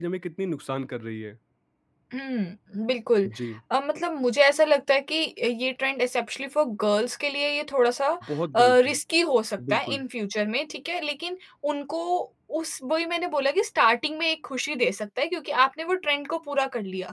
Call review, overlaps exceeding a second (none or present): none